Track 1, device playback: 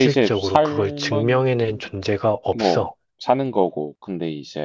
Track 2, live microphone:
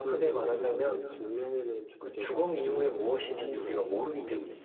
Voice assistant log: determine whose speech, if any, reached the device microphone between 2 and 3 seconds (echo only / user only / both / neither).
both